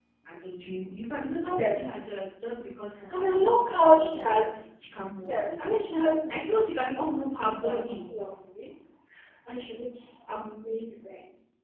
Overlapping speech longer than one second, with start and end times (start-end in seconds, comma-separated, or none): 3.1-4.4